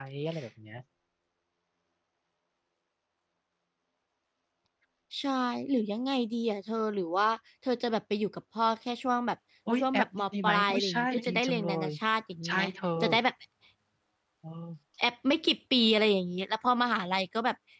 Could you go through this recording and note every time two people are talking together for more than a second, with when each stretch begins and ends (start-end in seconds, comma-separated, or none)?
9.8-11.9